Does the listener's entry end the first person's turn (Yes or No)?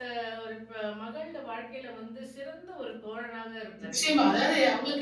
Yes